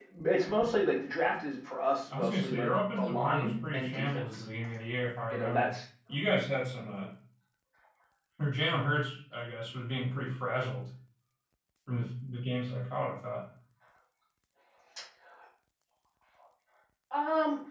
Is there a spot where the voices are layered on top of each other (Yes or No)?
Yes